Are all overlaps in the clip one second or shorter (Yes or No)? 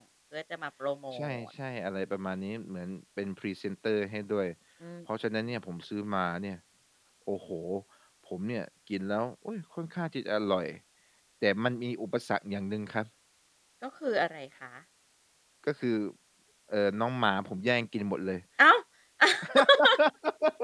Yes